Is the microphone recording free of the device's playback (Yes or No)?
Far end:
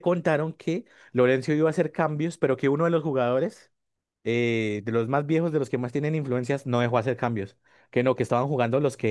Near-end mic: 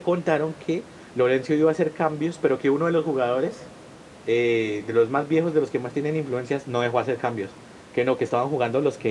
No